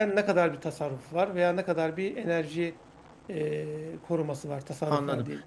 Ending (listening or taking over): taking over